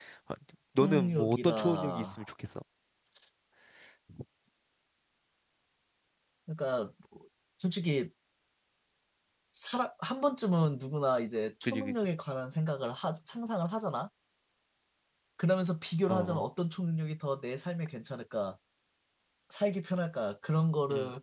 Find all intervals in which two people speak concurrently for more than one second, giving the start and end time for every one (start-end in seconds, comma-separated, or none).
0.8-2.0